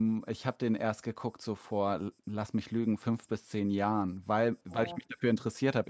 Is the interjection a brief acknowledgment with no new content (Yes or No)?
Yes